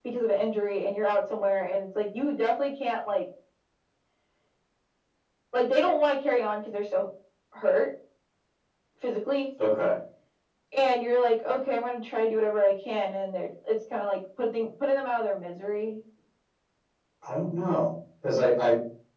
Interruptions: none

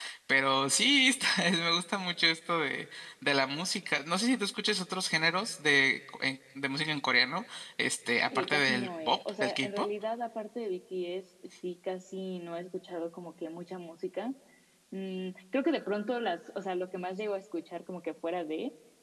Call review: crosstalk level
present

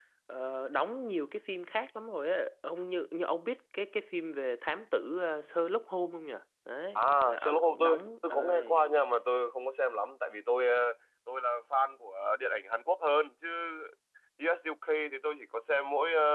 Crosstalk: present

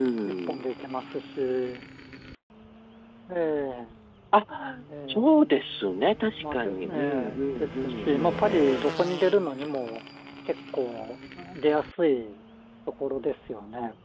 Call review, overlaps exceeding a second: present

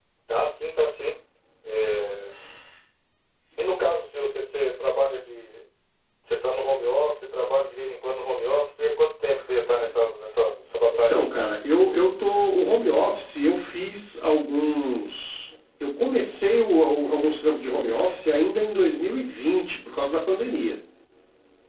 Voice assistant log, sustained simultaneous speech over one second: none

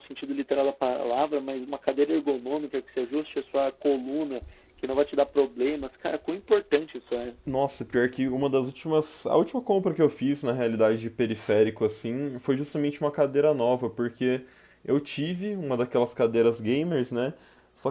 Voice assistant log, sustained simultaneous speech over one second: none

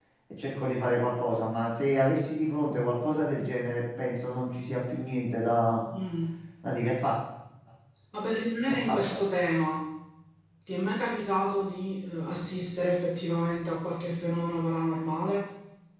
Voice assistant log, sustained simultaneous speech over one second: none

